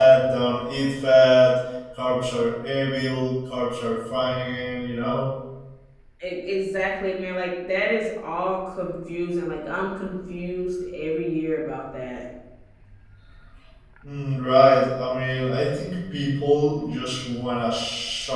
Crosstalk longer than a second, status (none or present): none